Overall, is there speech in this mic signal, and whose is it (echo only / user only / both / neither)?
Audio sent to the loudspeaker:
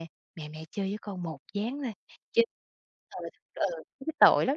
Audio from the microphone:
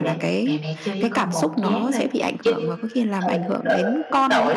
both